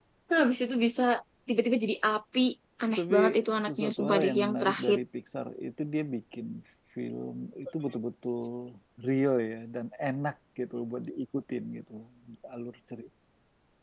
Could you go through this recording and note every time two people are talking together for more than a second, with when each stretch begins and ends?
3.7-5.0

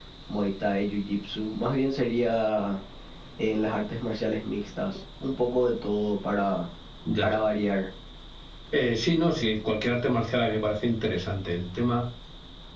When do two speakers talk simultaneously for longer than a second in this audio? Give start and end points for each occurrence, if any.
none

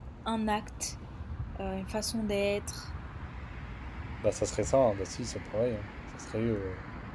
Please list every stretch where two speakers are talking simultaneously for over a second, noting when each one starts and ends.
none

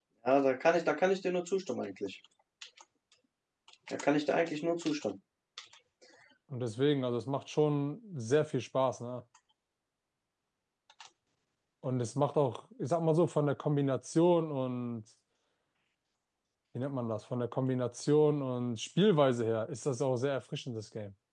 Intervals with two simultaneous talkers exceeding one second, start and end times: none

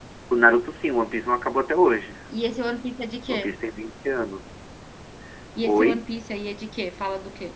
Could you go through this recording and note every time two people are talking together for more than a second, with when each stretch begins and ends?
none

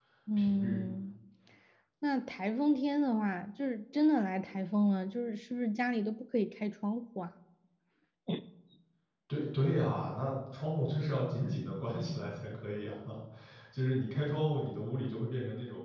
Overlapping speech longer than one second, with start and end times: none

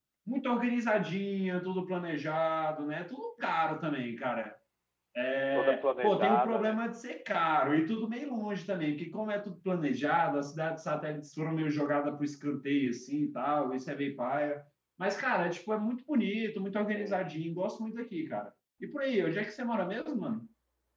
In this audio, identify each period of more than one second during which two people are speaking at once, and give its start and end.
5.5-6.8

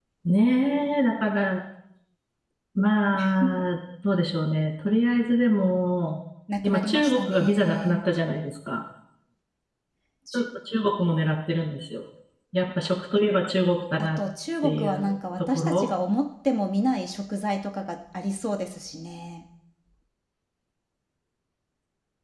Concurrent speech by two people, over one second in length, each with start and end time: 6.6-8.0, 14.6-15.9

